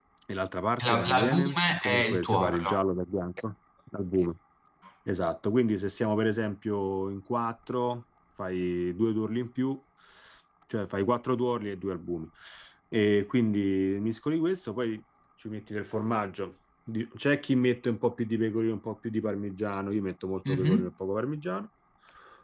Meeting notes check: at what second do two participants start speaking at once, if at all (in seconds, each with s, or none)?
0.8 s